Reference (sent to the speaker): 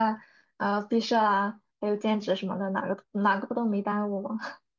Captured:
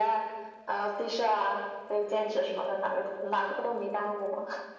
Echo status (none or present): present